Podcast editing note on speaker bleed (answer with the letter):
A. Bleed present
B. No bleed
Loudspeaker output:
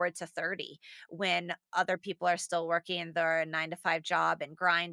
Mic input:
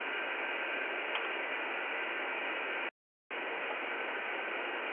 B